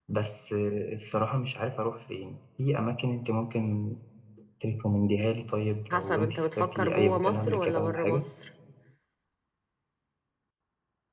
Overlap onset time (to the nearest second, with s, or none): 6 s